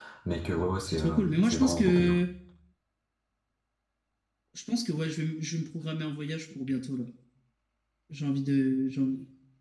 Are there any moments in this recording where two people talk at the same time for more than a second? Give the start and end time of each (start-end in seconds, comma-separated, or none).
0.9-2.2